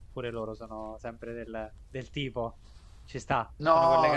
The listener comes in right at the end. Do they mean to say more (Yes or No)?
Yes